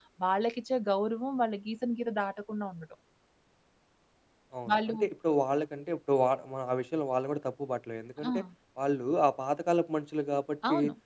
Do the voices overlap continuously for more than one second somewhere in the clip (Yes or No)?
No